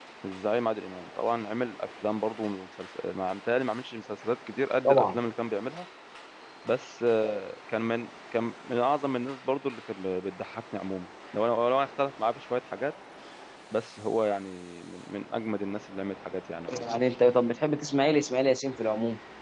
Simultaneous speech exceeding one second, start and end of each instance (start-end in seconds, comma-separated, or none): none